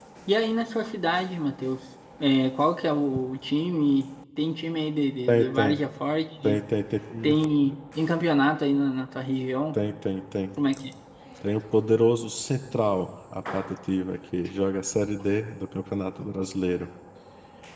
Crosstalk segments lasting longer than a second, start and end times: none

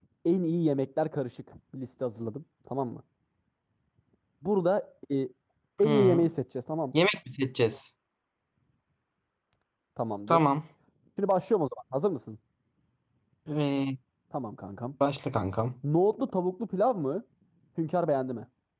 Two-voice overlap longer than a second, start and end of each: none

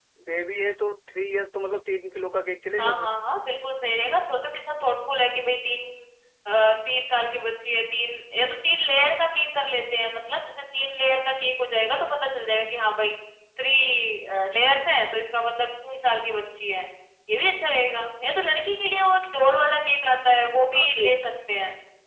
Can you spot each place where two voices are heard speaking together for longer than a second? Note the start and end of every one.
none

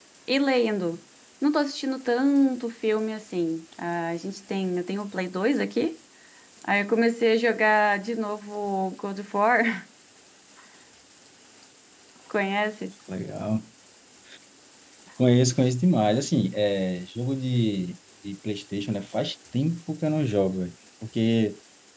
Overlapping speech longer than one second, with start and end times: none

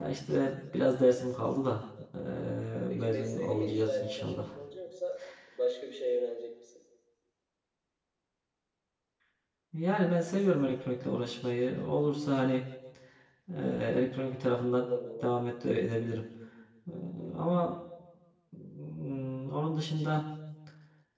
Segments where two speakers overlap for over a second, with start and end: 2.9-4.4

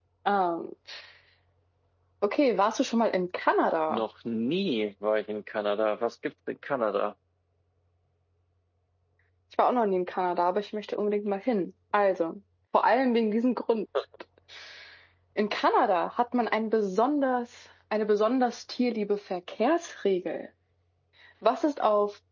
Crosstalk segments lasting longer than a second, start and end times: none

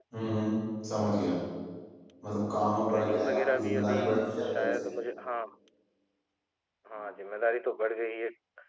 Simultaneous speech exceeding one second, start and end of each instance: 2.5-4.0

